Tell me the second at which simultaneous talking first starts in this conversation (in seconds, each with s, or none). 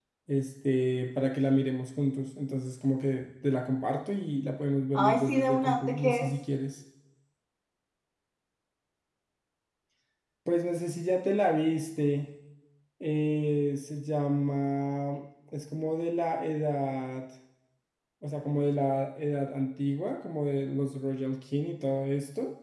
5.0 s